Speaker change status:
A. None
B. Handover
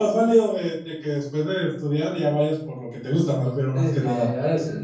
B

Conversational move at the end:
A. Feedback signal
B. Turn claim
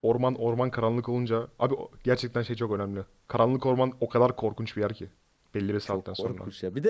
B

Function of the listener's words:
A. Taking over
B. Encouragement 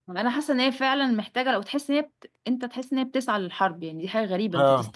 A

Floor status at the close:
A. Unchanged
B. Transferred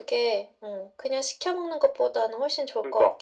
B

